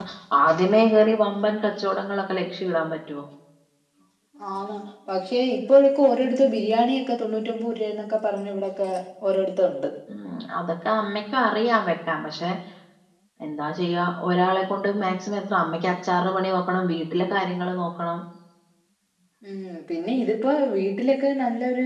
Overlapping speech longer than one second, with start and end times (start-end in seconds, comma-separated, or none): none